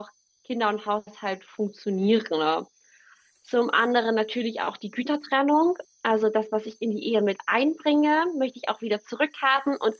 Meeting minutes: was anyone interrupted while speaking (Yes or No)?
No